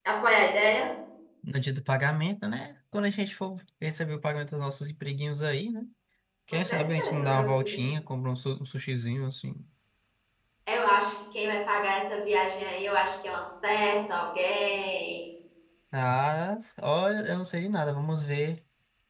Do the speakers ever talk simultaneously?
Yes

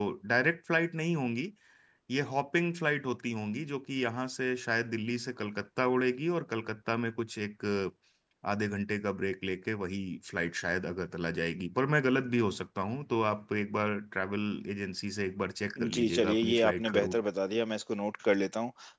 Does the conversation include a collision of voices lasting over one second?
Yes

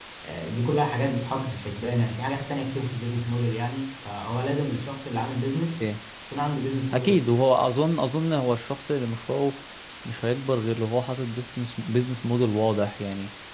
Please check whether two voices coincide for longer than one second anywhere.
No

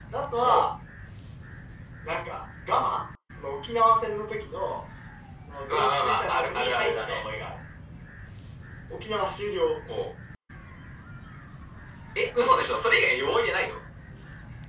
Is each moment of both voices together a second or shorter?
No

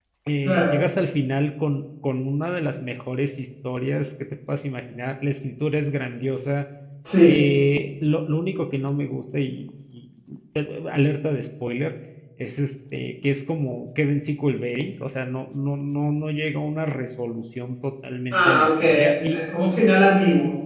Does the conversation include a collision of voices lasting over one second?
Yes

